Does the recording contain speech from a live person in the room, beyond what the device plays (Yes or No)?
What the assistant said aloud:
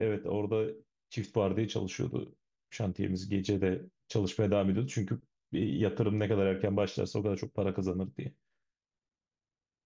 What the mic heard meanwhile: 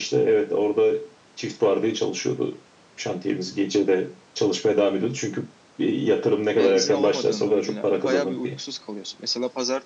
Yes